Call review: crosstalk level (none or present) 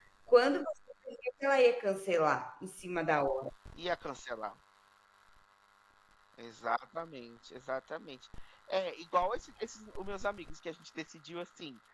none